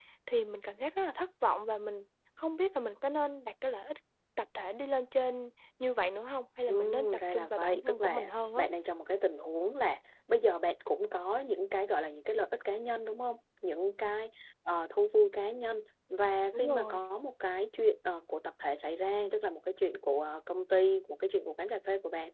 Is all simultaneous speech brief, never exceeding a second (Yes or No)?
No